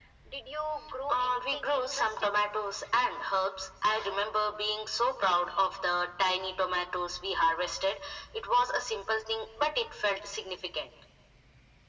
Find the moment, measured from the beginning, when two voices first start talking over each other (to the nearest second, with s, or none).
1 s